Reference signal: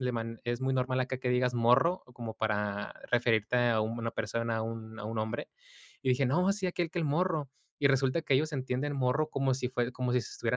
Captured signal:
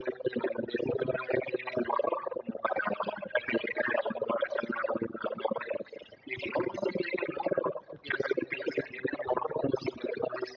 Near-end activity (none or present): none